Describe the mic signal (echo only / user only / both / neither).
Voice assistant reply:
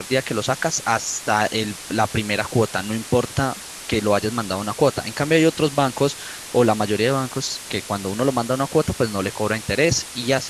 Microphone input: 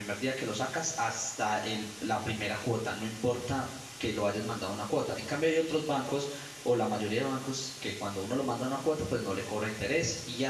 echo only